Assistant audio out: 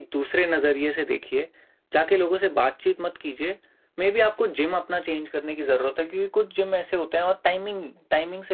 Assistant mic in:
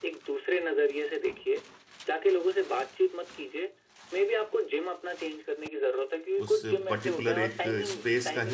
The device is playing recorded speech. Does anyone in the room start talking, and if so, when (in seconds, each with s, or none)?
6.4 s